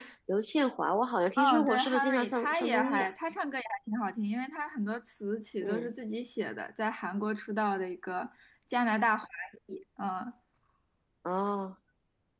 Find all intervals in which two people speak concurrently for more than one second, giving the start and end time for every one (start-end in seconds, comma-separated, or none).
1.4-3.1